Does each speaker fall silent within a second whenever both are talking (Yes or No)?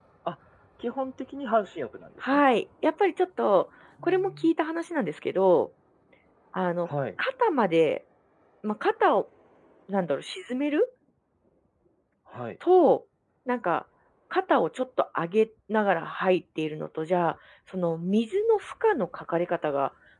Yes